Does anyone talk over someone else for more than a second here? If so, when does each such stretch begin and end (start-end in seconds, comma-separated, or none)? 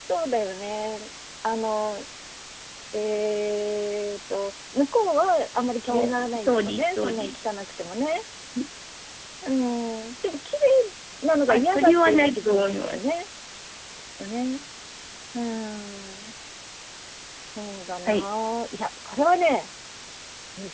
5.9-7.4, 11.5-13.0